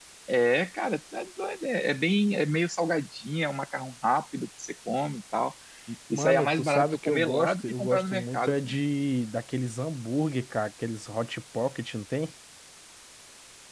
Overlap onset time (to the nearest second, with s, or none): 6 s